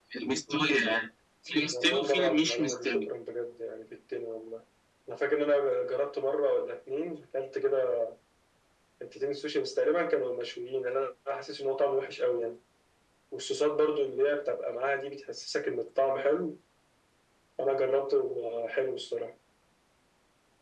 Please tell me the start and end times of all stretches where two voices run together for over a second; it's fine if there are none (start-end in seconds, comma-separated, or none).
1.6-3.0